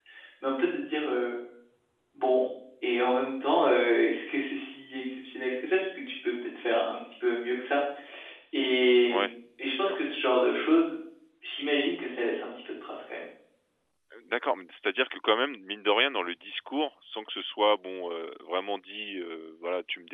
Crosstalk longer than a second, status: none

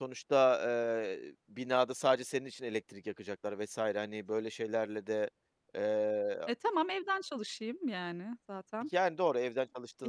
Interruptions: none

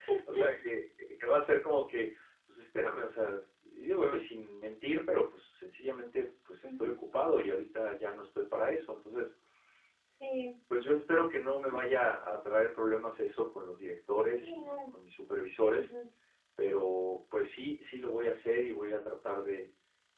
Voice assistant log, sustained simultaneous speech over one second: none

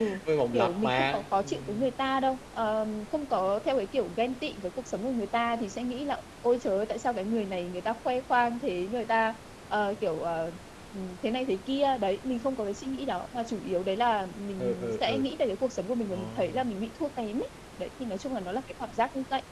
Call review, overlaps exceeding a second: present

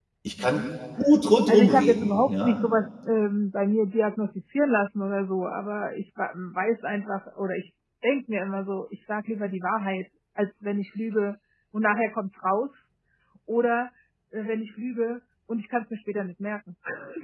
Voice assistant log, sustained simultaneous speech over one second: present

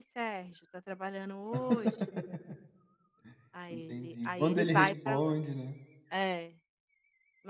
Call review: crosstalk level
present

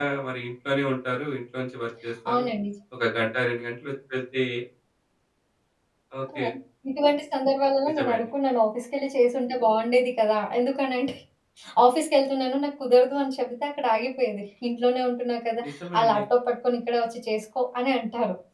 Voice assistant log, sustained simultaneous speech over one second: none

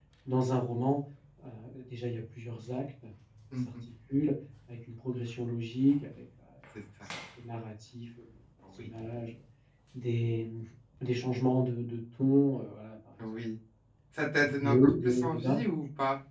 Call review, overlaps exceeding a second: present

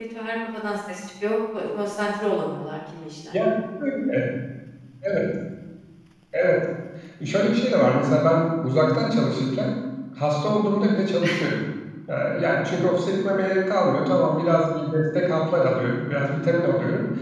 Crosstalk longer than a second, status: none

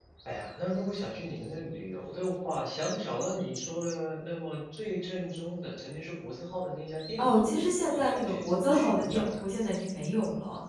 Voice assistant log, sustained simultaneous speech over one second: present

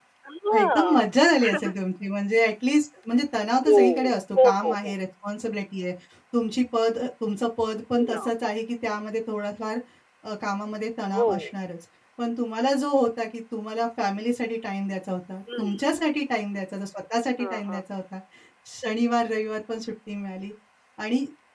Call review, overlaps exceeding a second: none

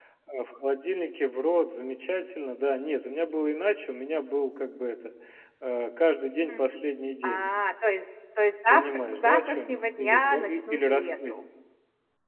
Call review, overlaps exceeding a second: present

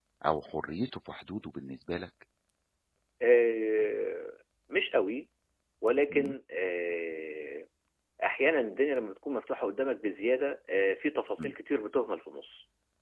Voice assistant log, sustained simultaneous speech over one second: none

